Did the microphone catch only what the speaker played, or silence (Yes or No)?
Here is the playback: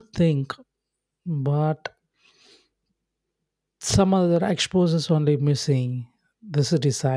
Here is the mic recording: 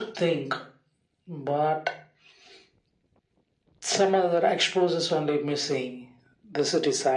Yes